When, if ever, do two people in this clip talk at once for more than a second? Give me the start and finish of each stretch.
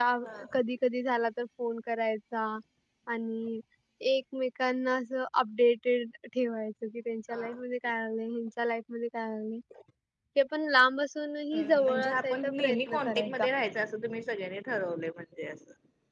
11.5-13.5

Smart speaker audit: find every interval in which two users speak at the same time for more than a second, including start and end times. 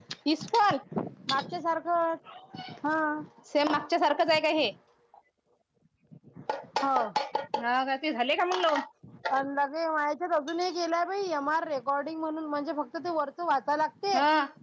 none

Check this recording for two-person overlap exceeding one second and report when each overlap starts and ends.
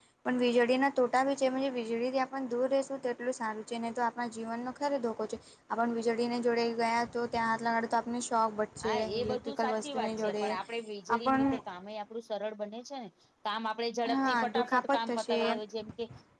8.8-10.4, 14.1-15.4

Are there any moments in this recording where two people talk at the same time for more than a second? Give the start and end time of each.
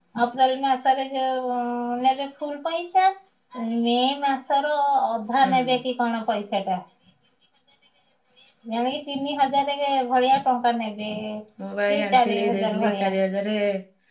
11.9-13.1

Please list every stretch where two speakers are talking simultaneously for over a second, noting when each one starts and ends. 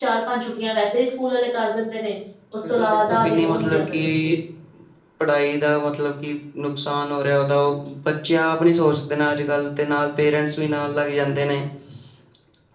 2.7-4.3

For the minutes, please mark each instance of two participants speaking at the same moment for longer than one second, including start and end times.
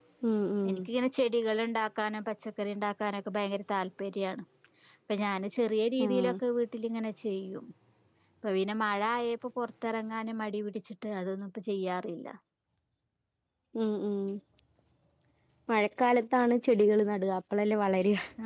none

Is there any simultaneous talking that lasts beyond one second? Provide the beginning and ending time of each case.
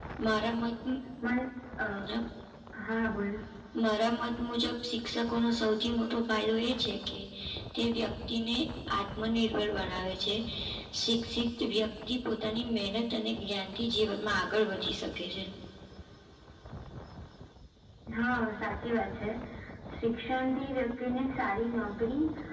none

